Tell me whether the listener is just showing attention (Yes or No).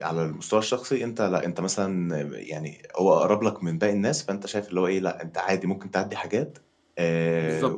No